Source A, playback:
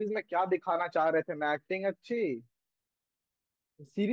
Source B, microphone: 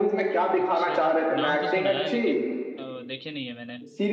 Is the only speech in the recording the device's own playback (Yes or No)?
No